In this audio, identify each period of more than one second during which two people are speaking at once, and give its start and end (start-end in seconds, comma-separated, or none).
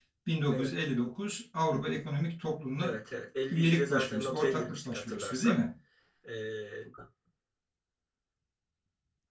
3.5-5.6